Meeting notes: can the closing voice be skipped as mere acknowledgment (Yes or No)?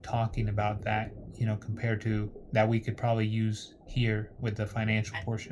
No